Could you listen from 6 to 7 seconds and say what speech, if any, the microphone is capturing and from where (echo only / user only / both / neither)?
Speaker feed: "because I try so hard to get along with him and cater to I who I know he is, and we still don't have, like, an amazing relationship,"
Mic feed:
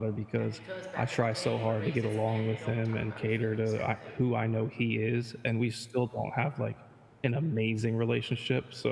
echo only